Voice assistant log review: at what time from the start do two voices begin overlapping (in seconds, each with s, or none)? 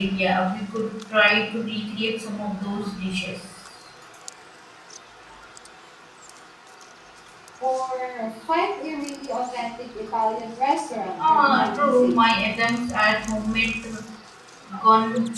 11.2 s